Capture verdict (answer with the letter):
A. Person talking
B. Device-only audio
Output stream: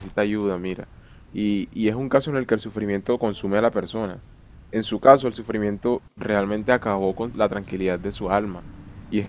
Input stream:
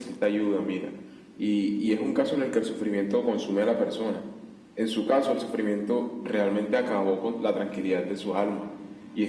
B